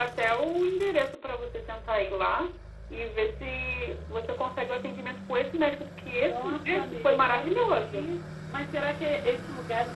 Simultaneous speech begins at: 6.1 s

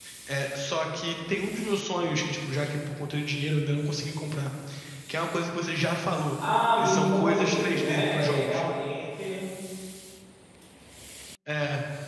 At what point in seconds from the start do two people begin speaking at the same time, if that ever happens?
6.8 s

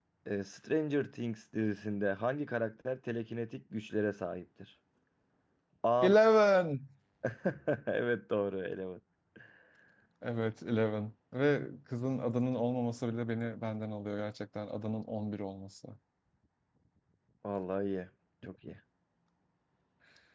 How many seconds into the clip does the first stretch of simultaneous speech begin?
none

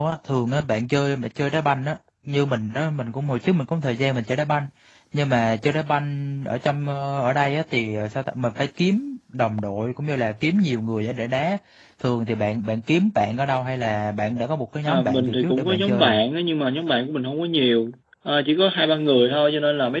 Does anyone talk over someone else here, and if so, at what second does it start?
14.8 s

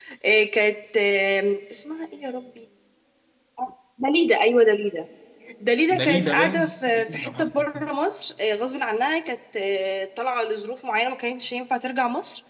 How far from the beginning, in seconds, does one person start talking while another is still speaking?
5.9 s

